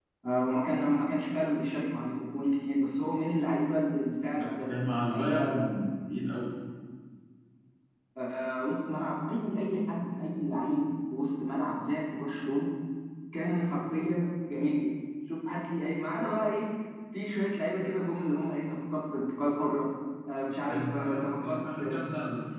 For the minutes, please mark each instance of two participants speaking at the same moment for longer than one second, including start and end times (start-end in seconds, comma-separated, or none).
4.4-5.6, 20.6-22.0